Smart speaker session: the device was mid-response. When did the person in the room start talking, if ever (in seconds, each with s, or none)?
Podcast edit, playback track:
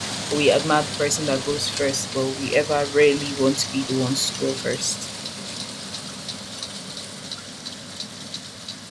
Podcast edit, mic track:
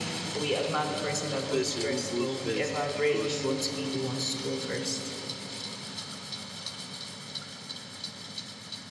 1.5 s